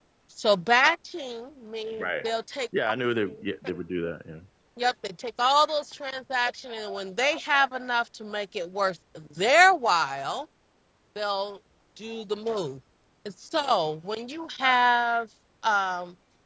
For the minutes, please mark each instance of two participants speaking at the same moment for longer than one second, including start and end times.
none

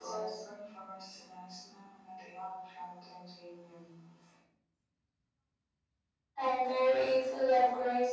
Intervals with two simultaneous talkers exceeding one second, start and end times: none

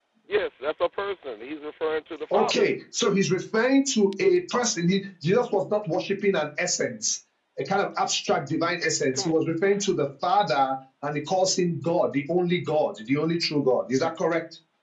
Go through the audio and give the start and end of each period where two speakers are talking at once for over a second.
none

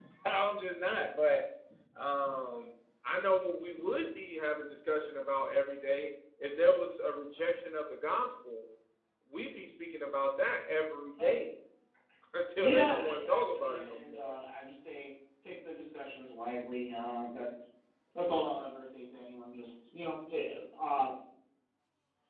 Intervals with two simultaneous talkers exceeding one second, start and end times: 12.6-14.3

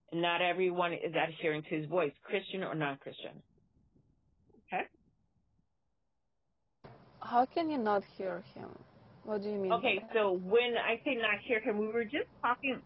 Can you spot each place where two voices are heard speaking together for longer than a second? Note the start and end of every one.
none

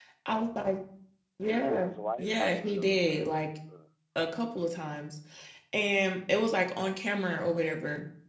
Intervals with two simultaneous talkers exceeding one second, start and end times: 1.5-3.2

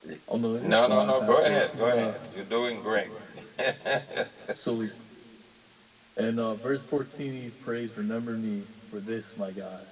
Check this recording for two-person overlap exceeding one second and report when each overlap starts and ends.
0.6-2.1

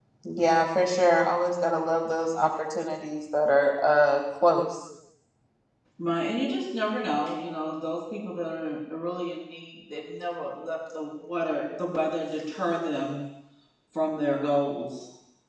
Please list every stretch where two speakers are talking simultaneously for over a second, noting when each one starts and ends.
none

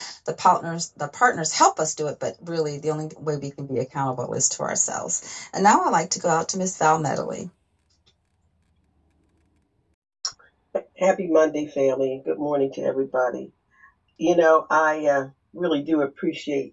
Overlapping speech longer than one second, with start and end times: none

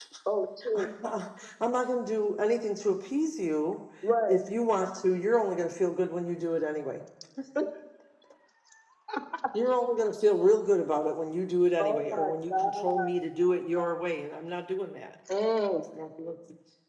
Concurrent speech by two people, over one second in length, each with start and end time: 11.8-13.1

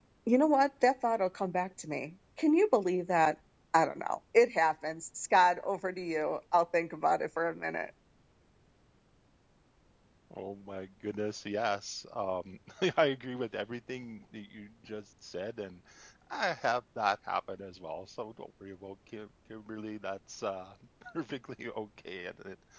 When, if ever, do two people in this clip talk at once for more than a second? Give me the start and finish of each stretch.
none

